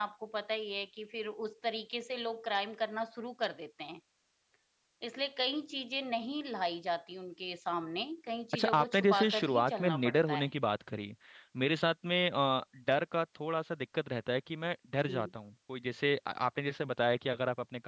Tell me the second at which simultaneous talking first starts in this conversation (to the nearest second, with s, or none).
9 s